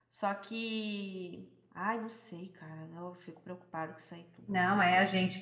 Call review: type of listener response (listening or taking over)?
taking over